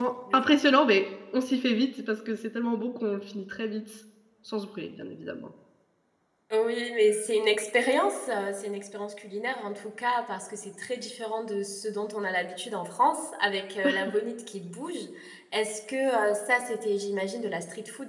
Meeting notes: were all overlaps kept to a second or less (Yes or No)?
Yes